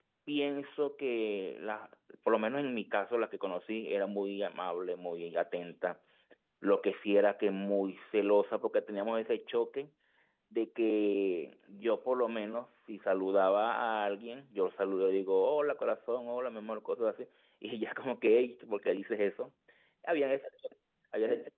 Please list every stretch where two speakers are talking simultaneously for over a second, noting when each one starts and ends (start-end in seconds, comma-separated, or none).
none